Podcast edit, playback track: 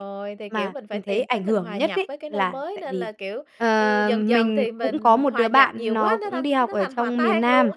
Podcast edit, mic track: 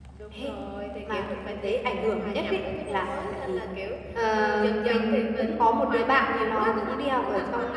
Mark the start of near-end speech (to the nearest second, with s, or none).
none